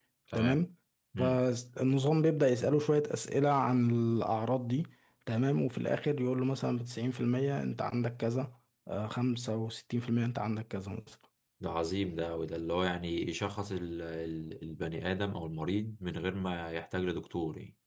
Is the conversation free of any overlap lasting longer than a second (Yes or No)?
Yes